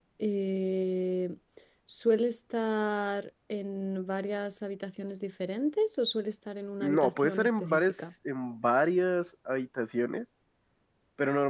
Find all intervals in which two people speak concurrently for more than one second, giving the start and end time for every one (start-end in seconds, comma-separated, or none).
6.8-8.1